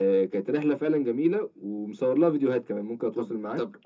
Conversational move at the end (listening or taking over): taking over